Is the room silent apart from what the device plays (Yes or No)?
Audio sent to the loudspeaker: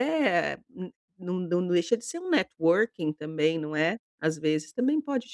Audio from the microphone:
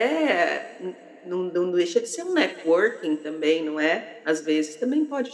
Yes